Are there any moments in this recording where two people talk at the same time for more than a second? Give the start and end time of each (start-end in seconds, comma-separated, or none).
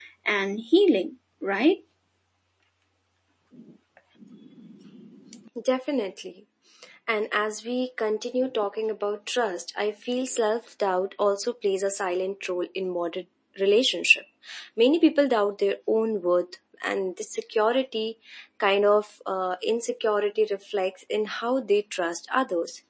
none